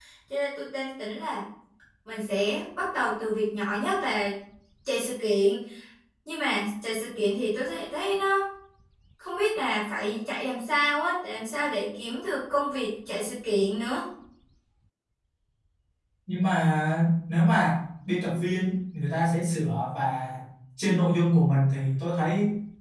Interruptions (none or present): none